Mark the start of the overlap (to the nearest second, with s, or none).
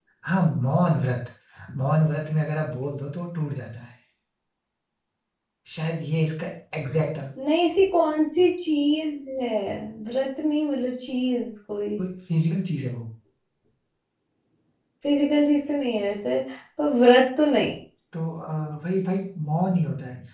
none